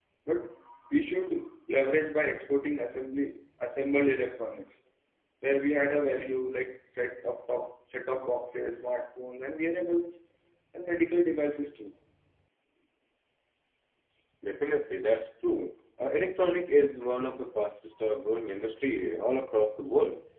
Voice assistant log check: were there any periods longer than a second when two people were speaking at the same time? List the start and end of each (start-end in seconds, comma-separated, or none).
none